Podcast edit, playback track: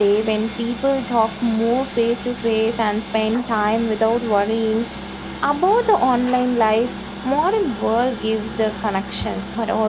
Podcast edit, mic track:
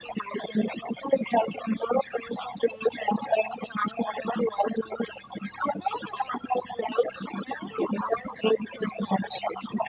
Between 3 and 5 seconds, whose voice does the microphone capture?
echo only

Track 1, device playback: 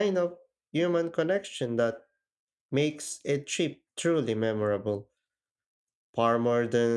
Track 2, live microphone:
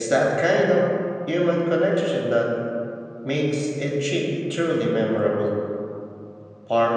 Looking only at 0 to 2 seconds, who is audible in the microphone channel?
echo only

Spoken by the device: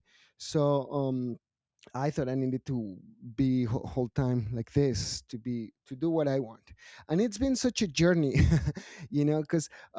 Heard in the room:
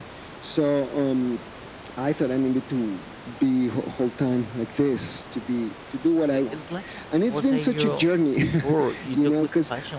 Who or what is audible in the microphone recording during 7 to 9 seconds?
both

